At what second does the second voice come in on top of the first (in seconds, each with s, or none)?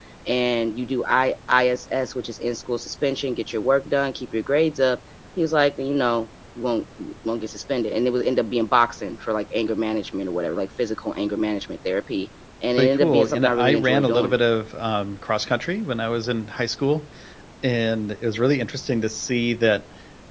12.8 s